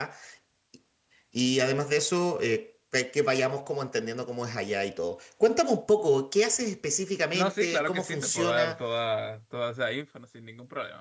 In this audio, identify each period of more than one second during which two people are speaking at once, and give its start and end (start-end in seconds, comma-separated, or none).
7.3-8.8